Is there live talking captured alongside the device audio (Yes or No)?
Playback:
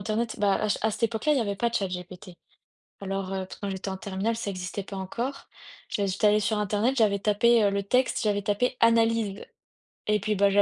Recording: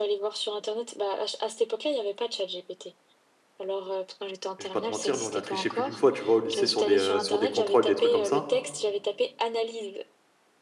Yes